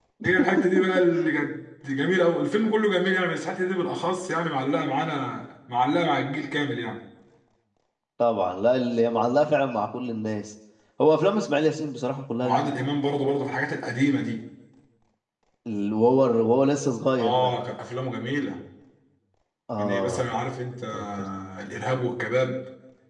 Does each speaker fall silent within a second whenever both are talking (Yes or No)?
Yes